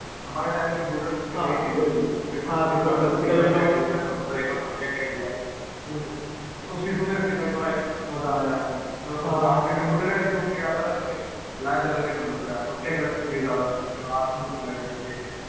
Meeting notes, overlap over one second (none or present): present